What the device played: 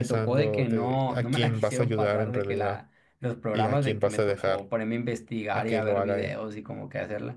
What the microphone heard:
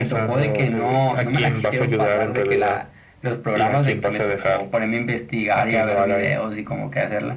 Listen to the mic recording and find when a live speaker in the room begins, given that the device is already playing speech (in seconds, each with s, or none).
none